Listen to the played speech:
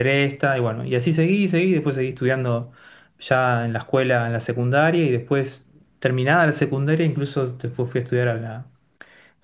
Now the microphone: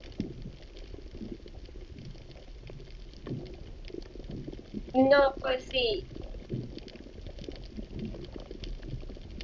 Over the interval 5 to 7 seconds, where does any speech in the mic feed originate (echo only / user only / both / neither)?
user only